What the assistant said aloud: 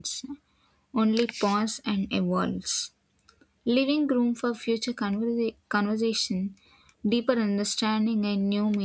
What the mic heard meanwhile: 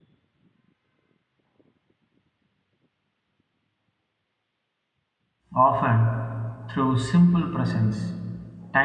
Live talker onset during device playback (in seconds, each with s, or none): 5.5 s